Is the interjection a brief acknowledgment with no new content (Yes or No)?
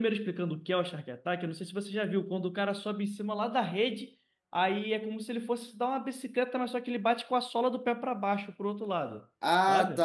No